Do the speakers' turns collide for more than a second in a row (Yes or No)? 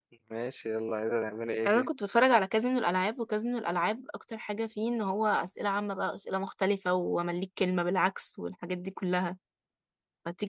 No